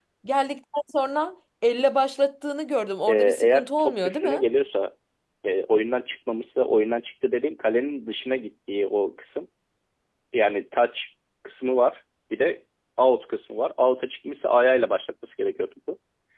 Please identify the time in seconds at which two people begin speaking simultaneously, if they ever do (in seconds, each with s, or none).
3.1 s